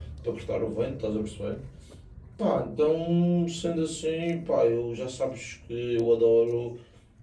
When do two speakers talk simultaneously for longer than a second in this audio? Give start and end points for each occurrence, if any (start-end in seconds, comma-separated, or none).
none